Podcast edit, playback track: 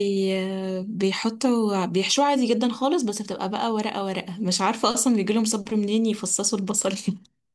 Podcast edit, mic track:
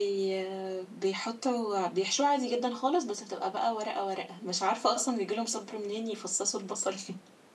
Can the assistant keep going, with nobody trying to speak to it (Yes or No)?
Yes